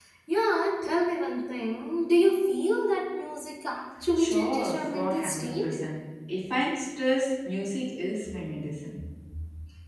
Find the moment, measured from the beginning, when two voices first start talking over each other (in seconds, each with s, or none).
4.0 s